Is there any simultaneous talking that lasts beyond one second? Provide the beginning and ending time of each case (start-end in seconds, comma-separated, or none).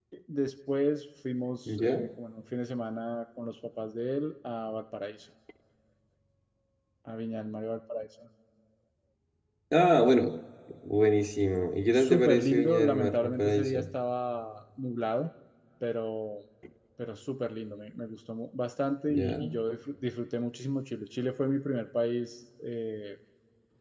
11.9-13.8